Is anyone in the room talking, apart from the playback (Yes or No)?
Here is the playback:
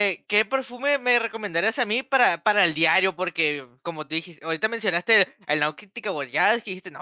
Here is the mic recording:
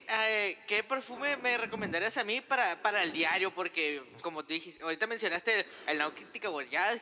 No